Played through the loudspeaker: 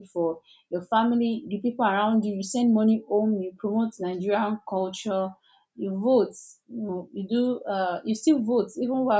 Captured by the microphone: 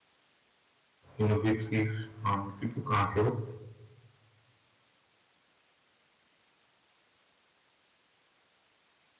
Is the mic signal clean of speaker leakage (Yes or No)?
Yes